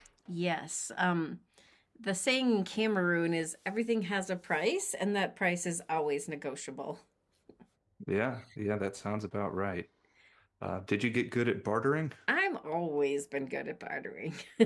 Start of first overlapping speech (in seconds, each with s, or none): none